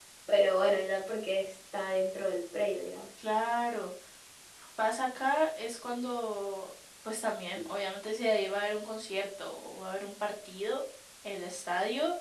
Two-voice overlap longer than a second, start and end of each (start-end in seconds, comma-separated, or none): none